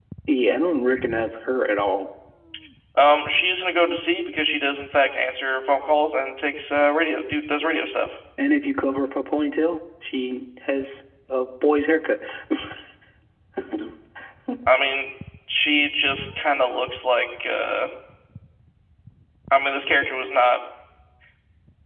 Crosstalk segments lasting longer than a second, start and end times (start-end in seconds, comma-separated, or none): none